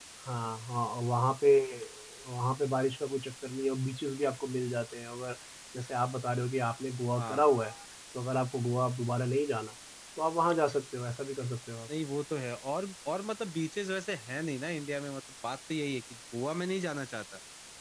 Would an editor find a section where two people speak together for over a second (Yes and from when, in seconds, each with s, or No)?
No